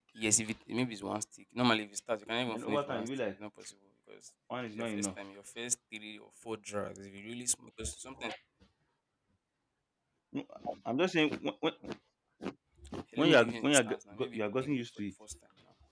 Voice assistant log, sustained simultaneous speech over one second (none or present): present